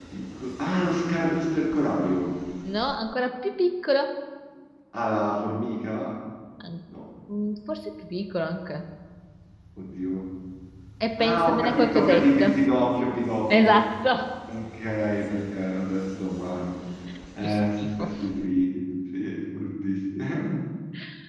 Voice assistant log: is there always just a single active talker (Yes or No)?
No